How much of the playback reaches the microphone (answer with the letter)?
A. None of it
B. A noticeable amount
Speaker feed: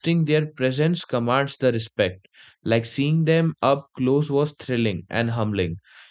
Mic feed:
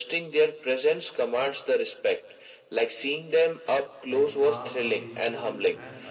B